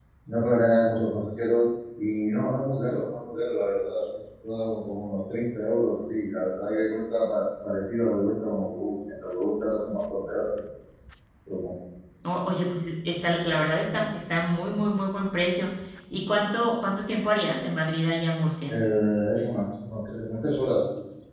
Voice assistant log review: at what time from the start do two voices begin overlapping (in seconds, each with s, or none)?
none